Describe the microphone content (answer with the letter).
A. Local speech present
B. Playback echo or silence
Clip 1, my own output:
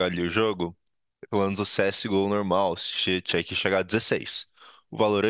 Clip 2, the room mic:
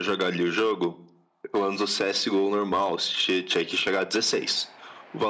B